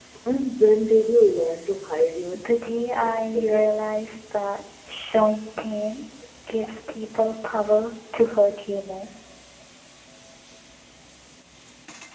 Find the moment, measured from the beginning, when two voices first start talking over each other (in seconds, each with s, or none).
2.3 s